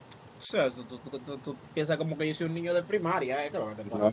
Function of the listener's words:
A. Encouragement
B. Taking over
B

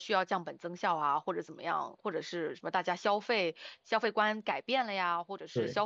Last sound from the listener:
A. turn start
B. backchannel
B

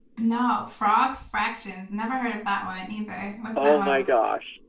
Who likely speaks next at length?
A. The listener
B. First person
A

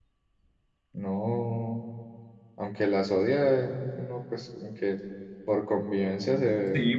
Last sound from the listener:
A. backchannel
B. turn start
B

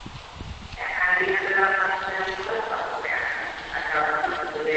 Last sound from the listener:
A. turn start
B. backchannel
B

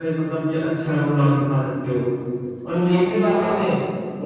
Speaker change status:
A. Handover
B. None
B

